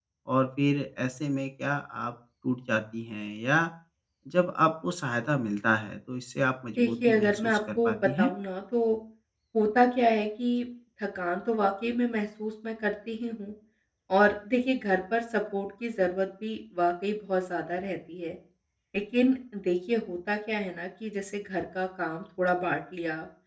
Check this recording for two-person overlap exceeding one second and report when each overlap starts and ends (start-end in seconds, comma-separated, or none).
6.8-8.3